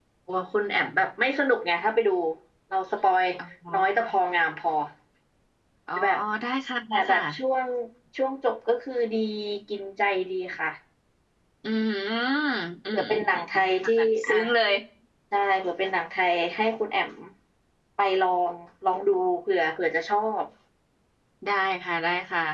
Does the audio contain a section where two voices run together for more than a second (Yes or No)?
Yes